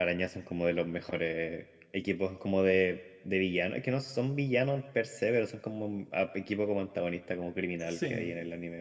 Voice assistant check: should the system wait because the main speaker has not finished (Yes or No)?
Yes